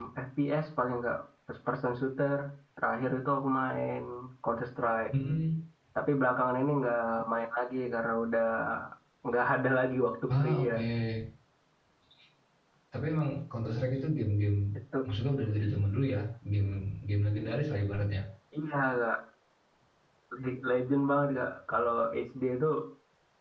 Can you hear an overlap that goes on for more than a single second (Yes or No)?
No